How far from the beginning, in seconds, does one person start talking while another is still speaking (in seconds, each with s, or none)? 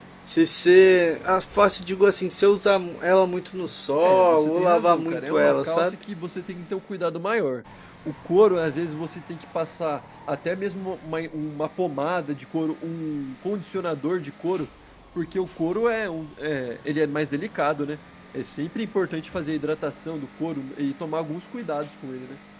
4.0 s